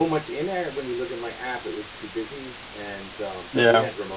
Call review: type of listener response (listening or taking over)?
listening